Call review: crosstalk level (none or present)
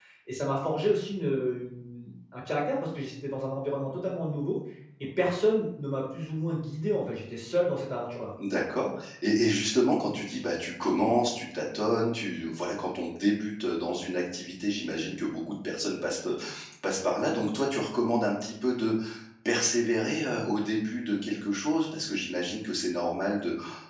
none